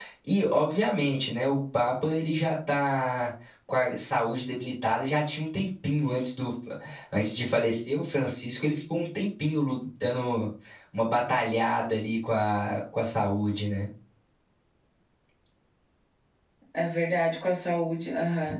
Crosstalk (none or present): none